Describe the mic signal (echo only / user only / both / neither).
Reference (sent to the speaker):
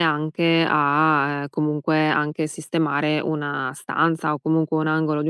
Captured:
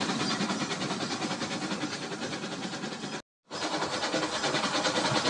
neither